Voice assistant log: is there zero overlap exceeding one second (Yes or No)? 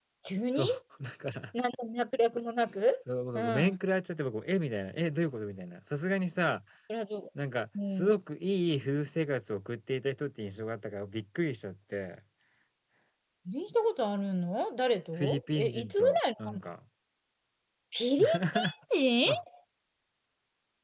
No